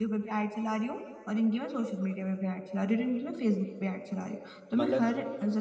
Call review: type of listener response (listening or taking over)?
listening